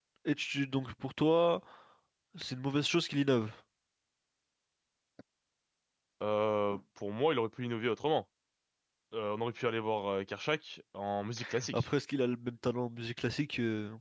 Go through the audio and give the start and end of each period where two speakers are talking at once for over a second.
none

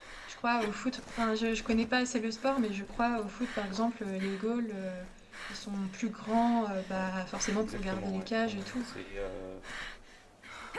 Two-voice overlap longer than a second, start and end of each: 7.6-8.8

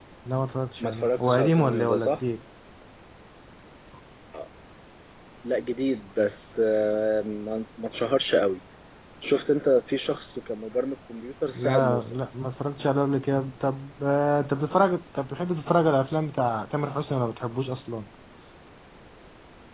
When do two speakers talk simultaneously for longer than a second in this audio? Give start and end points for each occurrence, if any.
0.8-2.2

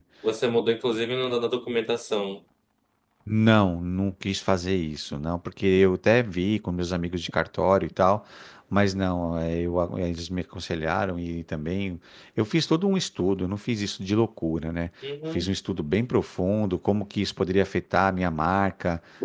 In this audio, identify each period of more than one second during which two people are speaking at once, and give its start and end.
none

